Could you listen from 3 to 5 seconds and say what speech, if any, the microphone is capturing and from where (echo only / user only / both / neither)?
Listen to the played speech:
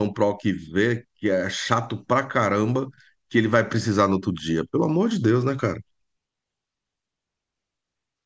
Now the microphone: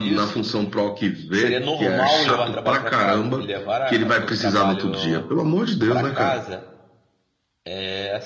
both